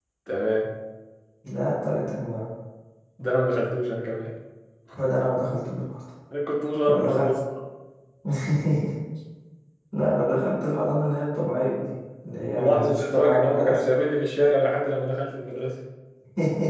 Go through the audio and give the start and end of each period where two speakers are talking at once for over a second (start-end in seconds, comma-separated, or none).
12.5-13.8